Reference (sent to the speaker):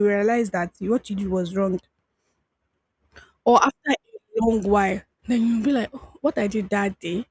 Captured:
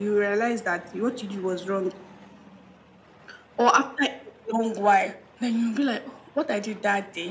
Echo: present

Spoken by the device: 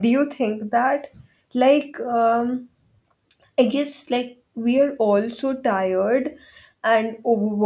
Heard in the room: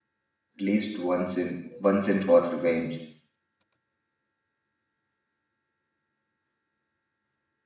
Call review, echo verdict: none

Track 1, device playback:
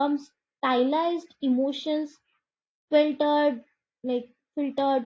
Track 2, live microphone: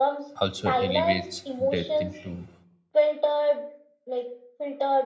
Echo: present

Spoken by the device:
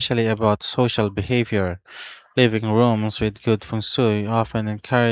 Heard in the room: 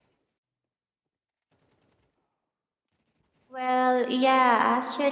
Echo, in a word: none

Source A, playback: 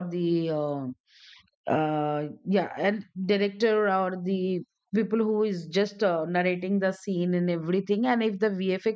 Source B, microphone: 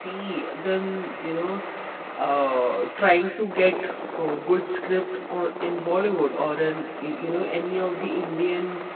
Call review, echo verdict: none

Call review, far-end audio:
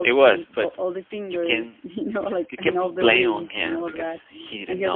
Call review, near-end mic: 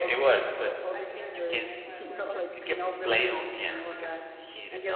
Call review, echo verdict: present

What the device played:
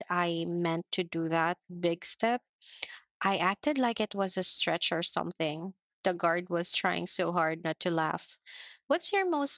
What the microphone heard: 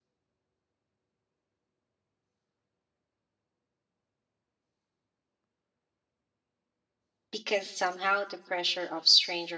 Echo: none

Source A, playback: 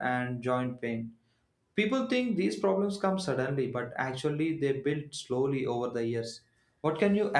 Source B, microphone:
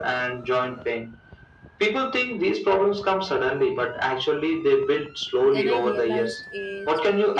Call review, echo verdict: present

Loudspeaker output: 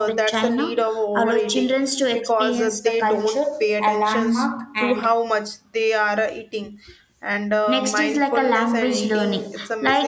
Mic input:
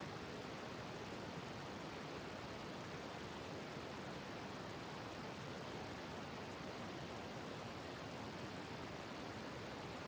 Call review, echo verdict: none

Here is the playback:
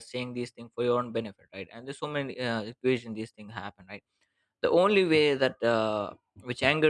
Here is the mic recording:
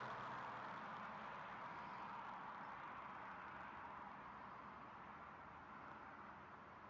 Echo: none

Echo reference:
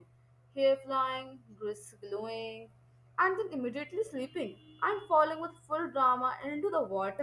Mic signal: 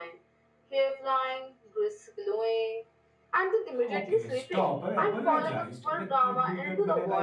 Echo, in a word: present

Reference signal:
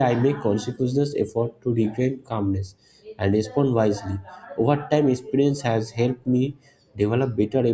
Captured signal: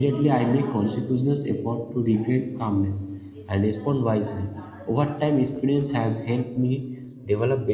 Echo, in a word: present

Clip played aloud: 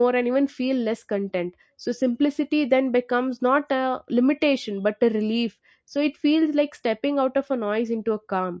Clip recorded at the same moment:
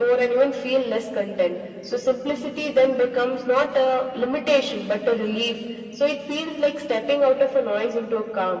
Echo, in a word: present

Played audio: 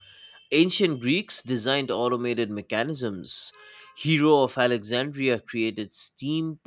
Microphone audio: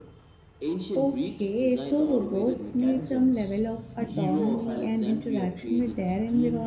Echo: present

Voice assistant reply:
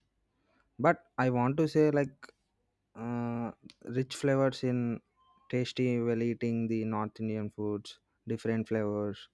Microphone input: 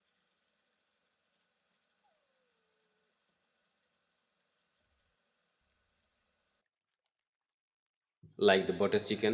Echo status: none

